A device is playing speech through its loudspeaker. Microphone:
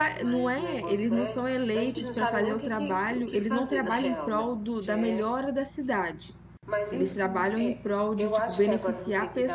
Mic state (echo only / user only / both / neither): both